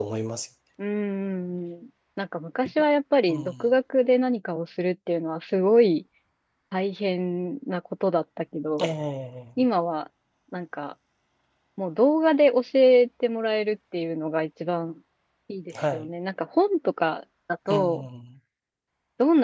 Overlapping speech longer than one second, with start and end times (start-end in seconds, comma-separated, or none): none